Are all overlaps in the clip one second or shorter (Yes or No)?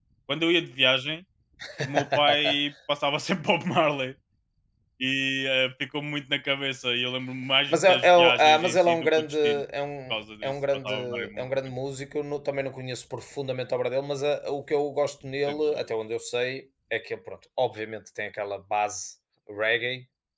No